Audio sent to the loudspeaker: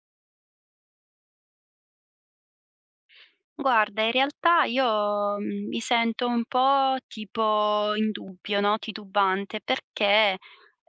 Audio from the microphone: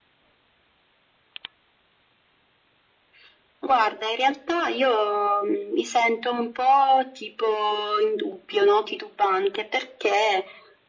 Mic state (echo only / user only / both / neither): echo only